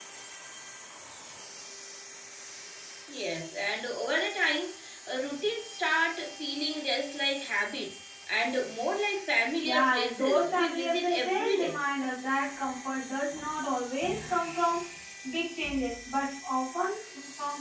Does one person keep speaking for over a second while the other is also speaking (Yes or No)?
Yes